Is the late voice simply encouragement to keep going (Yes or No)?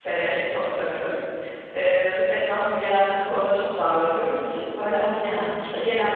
Yes